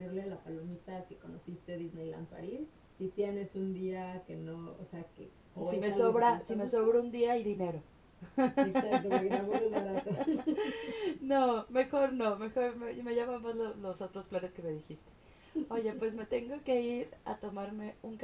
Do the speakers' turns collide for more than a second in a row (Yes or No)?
Yes